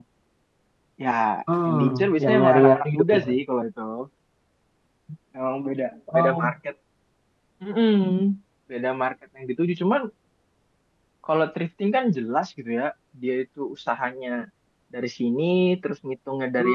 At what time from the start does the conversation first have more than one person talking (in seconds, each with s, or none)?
1.6 s